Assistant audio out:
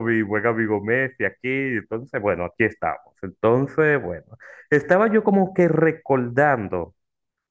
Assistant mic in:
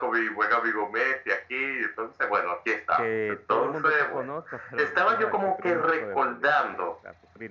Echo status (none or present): present